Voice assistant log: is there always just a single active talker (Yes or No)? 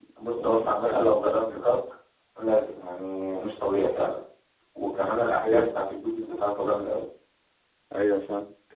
No